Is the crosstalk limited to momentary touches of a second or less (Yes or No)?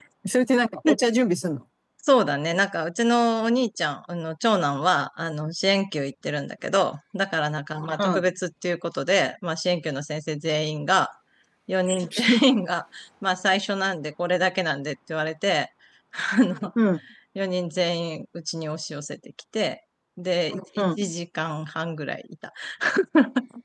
Yes